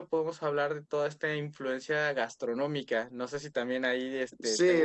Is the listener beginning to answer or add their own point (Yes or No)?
Yes